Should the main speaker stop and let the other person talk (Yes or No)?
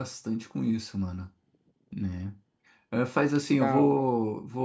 No